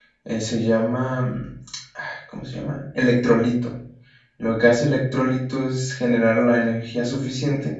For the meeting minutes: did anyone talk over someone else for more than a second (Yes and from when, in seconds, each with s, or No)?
No